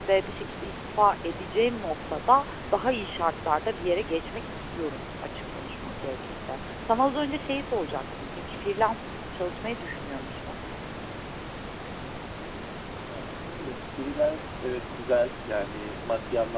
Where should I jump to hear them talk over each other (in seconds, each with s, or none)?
none